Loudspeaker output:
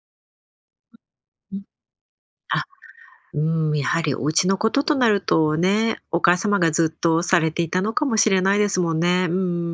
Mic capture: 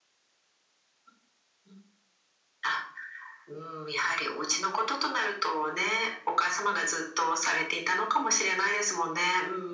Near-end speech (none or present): none